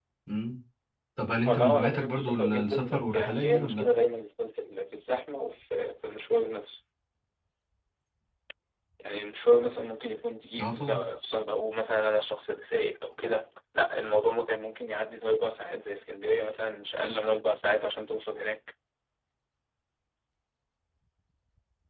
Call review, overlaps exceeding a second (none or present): present